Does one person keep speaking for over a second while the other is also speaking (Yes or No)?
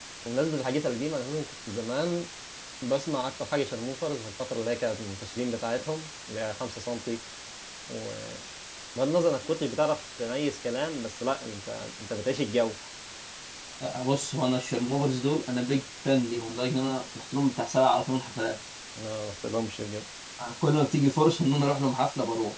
No